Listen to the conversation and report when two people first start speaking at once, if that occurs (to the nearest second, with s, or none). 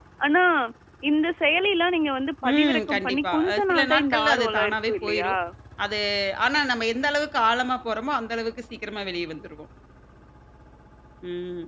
2 s